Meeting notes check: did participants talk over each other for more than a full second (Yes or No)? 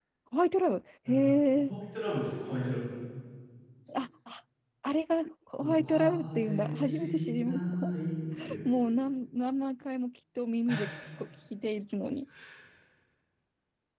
Yes